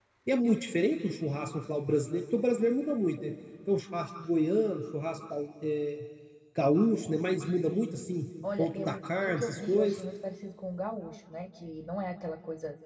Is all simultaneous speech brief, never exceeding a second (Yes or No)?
No